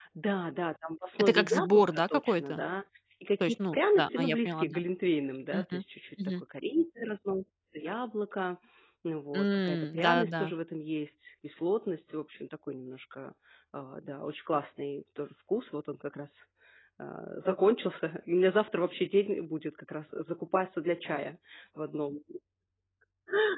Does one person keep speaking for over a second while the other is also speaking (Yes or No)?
Yes